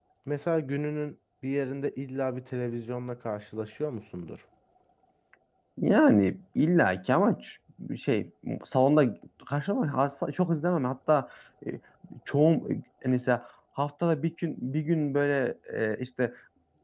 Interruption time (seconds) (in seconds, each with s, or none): none